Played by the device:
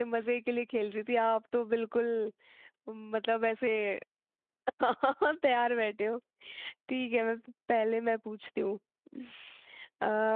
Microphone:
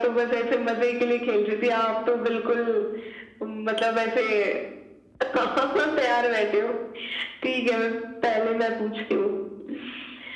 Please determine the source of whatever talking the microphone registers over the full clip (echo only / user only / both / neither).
echo only